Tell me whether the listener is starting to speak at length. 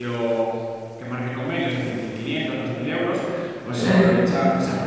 No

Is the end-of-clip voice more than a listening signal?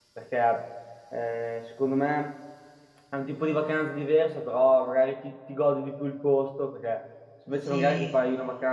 No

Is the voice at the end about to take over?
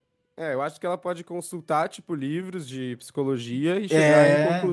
No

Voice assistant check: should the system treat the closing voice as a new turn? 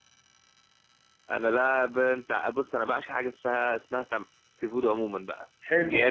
Yes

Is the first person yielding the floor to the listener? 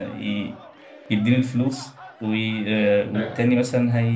No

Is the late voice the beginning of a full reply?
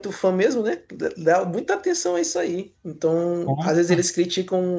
No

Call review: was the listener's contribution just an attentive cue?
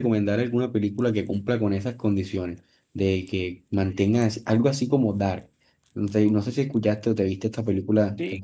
No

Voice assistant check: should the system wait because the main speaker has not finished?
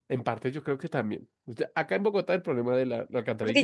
No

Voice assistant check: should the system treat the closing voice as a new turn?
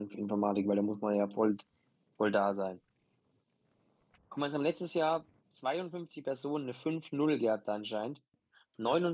No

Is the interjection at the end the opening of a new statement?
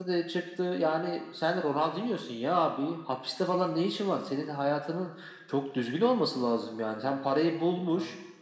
No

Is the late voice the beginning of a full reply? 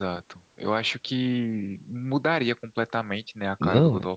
Yes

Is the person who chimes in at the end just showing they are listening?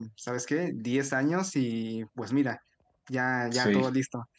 Yes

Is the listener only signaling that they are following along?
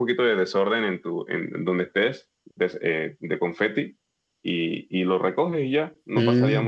No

